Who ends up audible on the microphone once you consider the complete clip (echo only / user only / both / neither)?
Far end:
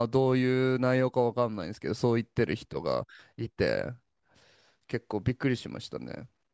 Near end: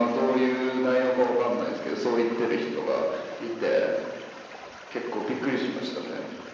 echo only